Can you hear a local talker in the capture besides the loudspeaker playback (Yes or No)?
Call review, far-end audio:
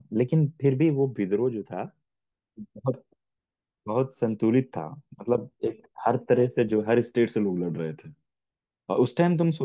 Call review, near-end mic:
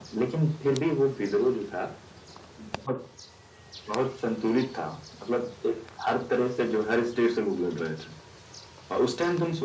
No